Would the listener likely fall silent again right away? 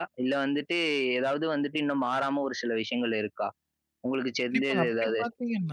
No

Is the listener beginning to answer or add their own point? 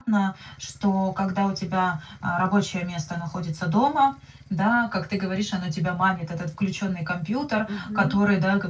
No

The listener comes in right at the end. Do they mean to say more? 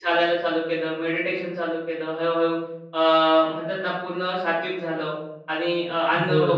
No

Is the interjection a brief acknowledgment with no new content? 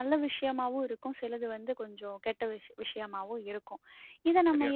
Yes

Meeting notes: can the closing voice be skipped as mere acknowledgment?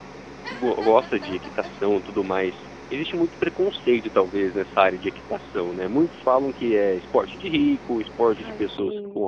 Yes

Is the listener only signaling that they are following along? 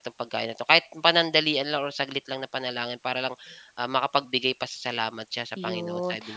No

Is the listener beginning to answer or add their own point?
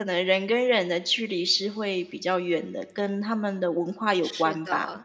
Yes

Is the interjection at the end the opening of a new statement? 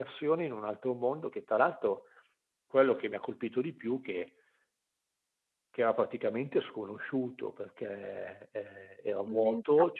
No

